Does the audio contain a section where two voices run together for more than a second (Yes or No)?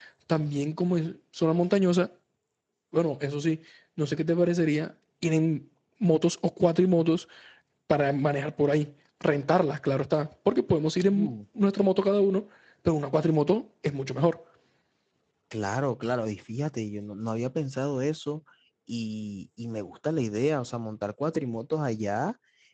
No